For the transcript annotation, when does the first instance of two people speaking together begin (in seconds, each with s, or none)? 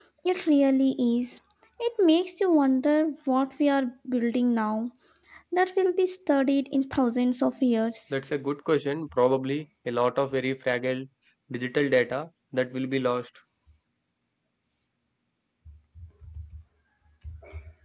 none